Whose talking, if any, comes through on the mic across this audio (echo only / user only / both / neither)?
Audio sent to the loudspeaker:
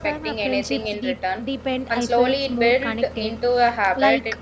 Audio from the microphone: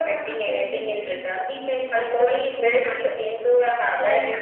echo only